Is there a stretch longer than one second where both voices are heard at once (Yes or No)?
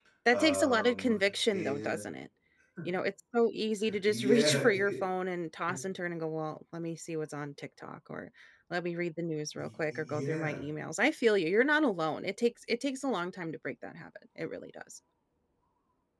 Yes